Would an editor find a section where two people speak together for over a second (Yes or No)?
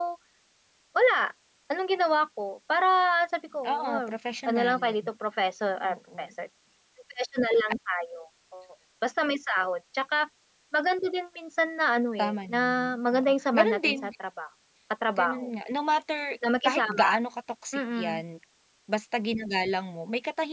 Yes